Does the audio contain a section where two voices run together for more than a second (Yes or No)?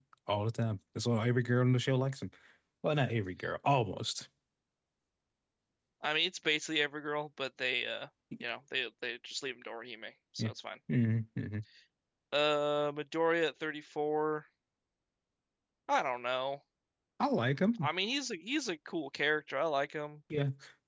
No